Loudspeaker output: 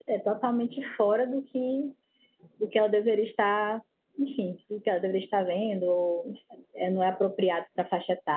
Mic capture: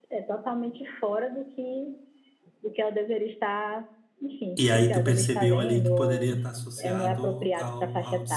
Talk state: both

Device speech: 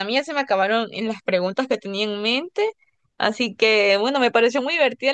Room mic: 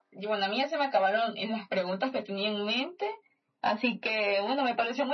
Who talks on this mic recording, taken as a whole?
echo only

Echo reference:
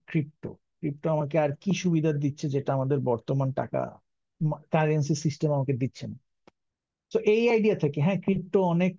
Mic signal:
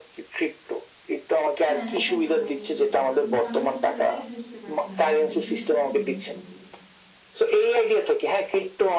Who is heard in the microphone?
both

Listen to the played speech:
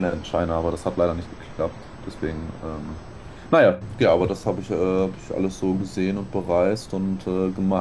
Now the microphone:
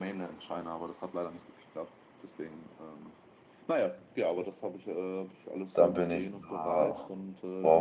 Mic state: both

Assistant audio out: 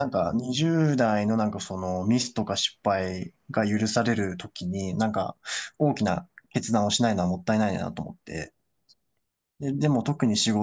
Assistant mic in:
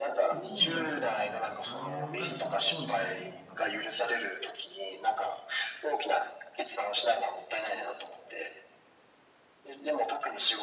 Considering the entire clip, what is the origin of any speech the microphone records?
both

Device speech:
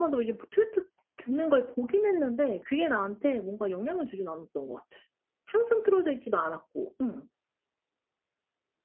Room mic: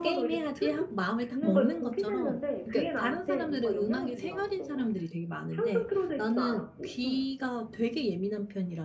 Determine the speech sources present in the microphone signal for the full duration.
both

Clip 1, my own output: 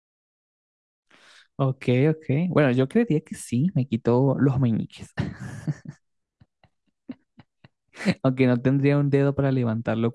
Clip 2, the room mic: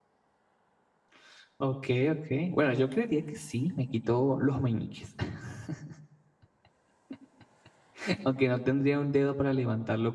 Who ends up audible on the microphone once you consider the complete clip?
echo only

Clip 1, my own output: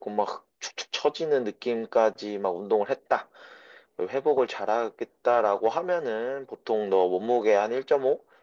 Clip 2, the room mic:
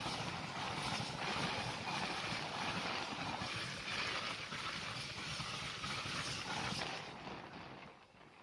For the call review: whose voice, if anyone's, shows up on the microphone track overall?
neither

